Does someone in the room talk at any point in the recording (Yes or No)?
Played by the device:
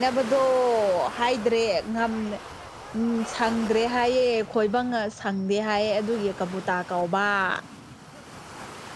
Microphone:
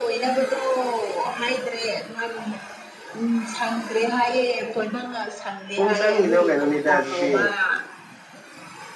Yes